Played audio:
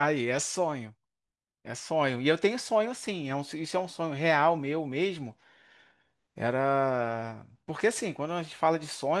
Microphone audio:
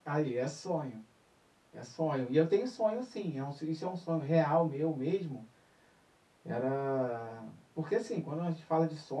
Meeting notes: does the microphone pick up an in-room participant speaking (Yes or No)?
No